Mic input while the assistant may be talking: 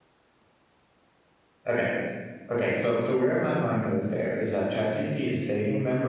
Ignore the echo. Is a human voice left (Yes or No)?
Yes